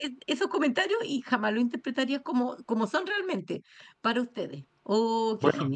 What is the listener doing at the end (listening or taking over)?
taking over